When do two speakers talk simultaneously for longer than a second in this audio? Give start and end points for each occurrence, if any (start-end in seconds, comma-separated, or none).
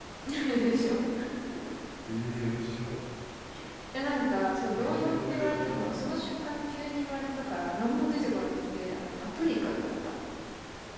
4.8-6.0